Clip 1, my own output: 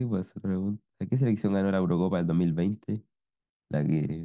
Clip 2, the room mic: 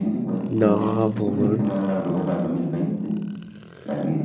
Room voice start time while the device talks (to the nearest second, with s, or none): 0 s